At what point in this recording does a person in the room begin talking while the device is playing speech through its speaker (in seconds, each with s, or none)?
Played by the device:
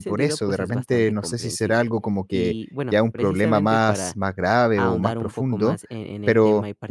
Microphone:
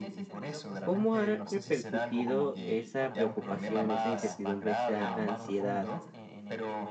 0.8 s